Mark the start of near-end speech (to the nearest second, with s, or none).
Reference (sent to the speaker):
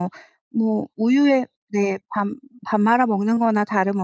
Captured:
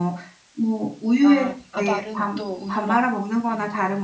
1 s